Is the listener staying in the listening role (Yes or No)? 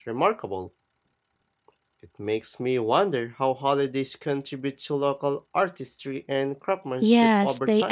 No